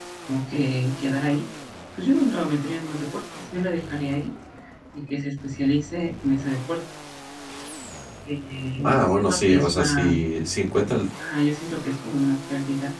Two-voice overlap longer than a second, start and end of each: 8.8-10.1

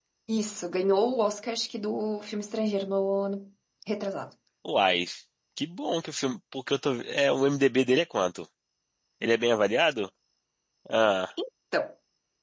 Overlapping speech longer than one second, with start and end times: none

